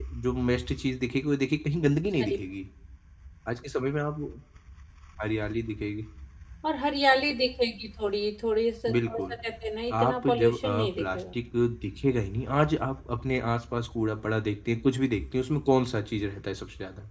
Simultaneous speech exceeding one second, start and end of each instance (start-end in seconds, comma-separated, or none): 9.9-11.4